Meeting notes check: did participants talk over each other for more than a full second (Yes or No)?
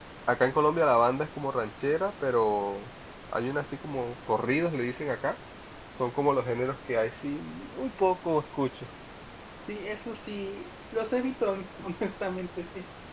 No